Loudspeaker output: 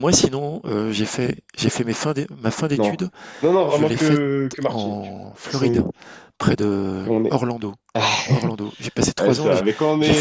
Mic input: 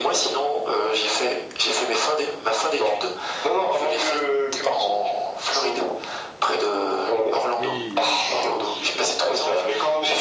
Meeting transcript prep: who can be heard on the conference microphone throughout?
both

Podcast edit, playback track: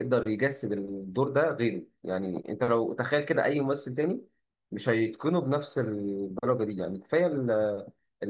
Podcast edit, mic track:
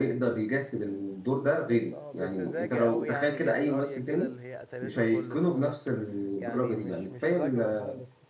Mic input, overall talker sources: both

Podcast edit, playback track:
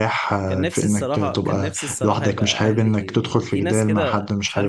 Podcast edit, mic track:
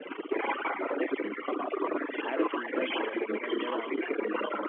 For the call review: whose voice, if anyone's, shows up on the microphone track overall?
both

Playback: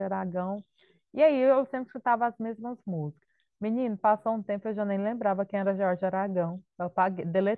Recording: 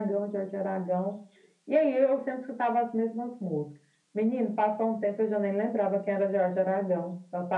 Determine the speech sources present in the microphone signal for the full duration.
echo only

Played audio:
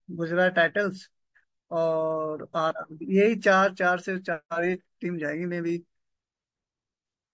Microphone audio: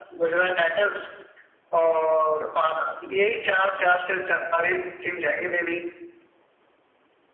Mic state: echo only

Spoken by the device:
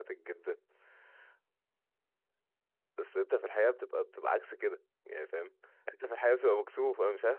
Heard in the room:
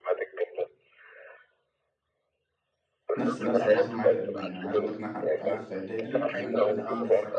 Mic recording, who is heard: both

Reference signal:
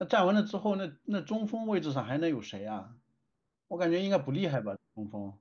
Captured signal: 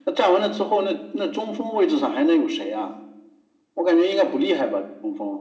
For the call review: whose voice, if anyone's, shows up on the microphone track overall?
echo only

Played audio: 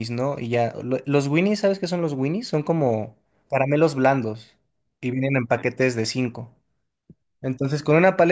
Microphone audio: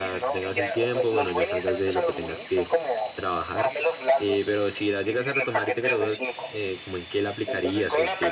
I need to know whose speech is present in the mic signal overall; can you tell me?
both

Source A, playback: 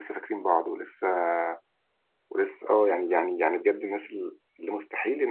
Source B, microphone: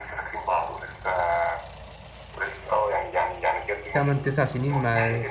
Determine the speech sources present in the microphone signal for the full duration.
both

